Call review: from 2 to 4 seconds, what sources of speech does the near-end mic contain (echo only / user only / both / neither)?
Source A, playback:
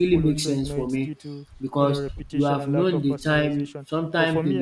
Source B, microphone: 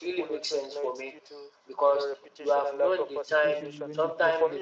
both